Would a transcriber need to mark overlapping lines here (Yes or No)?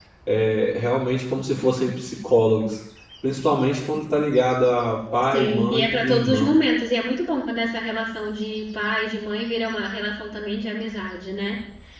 Yes